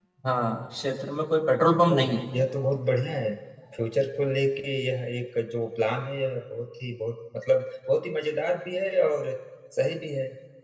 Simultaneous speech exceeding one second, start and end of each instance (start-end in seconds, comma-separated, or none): none